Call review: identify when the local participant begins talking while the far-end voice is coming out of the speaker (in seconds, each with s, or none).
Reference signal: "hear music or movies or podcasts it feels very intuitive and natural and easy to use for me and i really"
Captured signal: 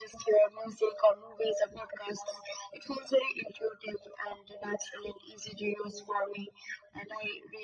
none